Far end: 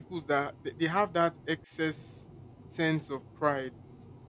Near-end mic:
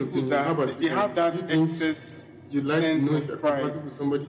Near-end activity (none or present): present